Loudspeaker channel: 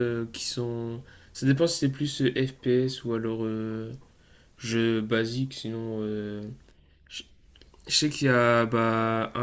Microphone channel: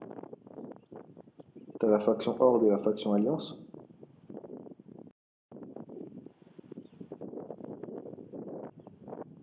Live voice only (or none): Tu as la faction Horde et la faction Alliance.